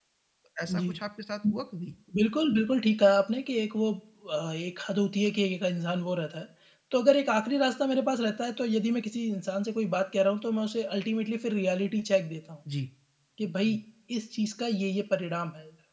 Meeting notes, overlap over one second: none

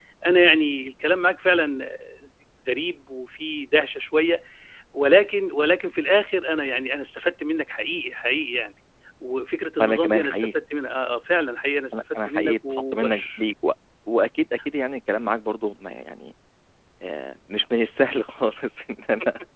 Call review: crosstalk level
present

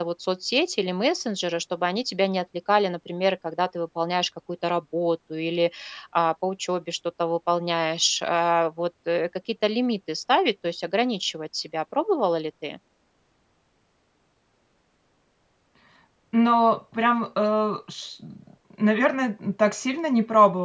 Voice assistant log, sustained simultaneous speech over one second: none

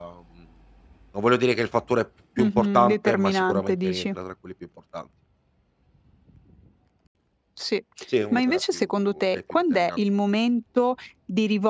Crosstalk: present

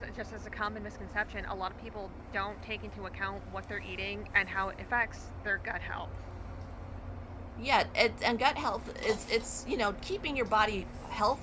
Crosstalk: none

